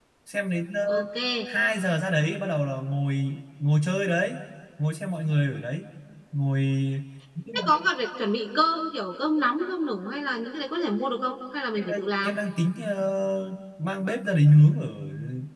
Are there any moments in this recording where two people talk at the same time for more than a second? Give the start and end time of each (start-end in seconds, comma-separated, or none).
none